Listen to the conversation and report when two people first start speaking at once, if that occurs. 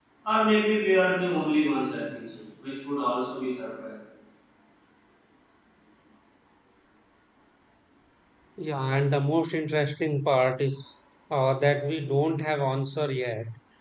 none

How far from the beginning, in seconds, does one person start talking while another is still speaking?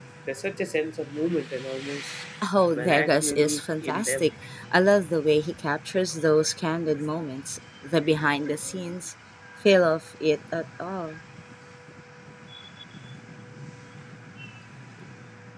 2.7 s

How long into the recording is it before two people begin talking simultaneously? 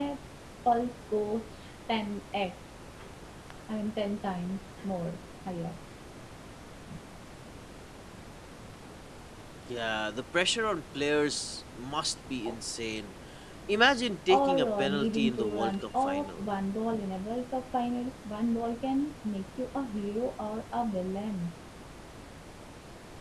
14.3 s

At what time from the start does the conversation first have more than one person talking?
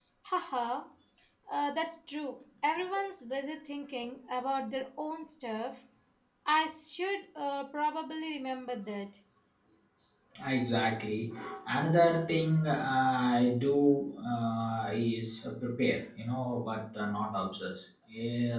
none

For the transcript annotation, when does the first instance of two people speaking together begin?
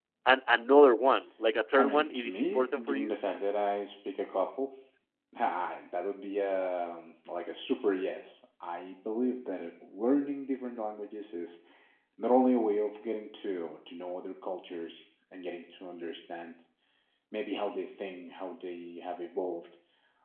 1.8 s

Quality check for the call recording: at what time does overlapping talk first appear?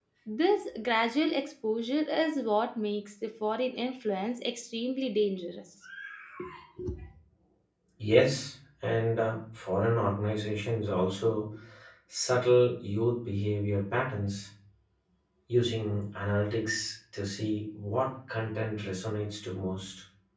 none

